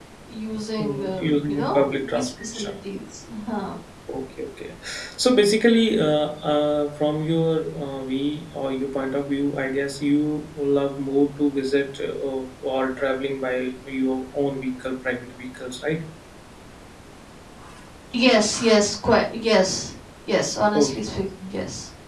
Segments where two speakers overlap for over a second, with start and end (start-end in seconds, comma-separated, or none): 0.8-2.7